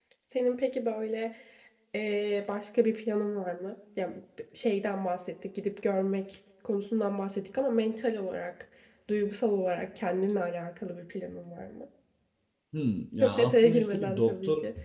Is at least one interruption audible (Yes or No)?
Yes